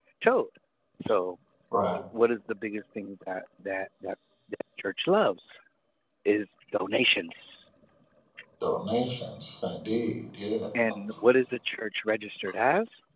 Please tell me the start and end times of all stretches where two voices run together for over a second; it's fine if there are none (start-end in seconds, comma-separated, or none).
none